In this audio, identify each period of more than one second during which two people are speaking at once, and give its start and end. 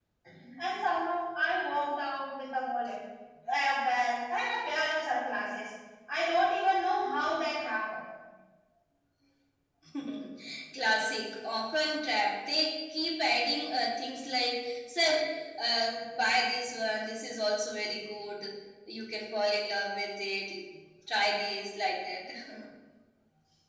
none

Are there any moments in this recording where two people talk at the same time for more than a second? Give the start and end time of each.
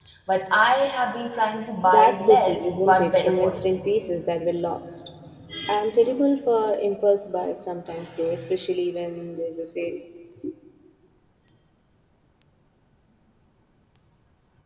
1.8-3.8

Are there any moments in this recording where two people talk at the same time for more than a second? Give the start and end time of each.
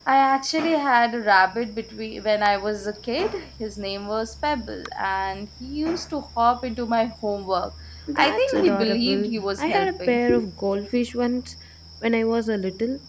8.2-10.2

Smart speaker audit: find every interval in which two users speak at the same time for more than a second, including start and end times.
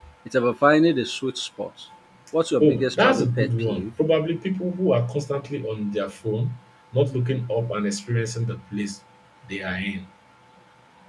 2.6-3.9

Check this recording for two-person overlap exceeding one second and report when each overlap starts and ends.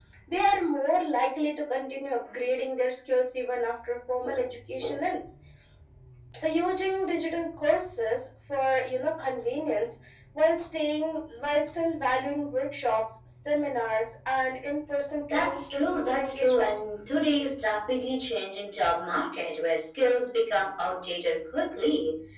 15.3-16.7

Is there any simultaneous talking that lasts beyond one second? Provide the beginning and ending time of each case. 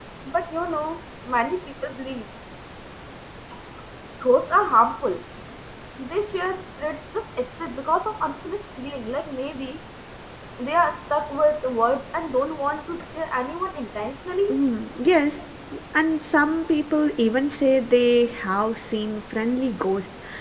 none

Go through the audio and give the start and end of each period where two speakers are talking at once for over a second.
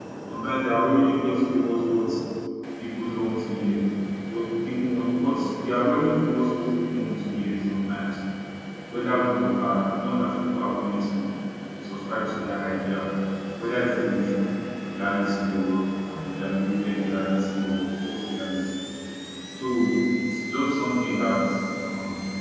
none

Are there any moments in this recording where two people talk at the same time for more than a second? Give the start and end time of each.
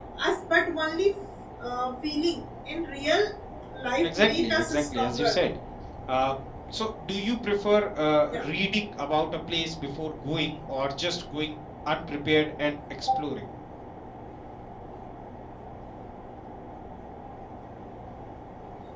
4.0-5.4

